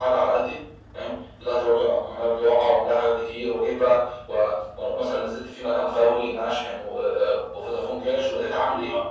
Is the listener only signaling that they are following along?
No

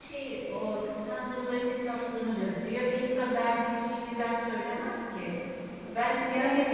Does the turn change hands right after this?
No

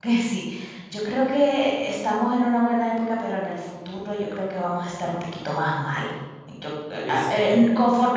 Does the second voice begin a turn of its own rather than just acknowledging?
No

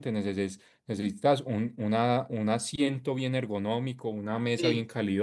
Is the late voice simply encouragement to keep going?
Yes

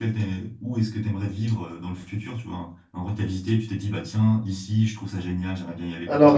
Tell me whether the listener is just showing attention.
No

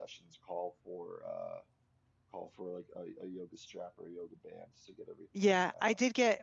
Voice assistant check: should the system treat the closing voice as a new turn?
Yes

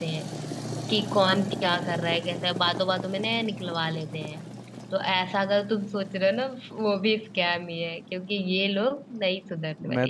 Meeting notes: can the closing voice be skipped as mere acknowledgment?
No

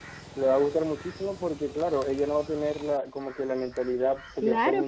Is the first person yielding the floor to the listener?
Yes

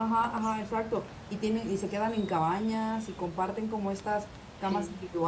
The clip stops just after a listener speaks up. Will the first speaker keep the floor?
Yes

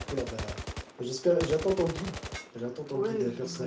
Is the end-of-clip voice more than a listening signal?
Yes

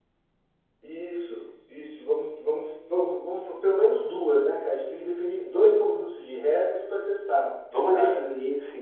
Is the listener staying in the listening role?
No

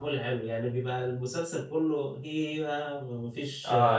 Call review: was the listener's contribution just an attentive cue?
No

